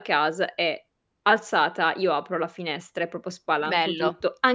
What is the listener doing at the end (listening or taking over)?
listening